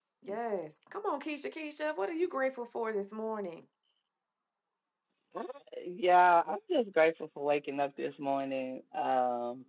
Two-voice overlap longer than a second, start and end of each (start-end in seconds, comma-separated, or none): none